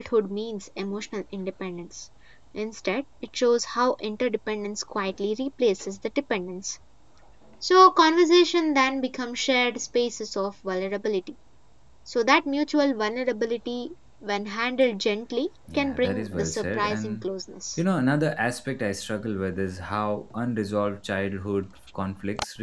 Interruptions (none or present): present